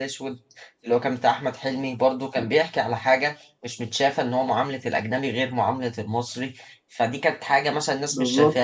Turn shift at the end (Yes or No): No